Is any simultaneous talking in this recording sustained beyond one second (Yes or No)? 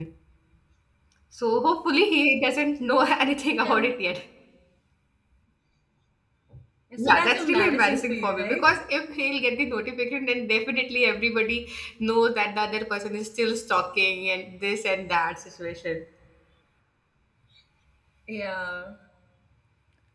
Yes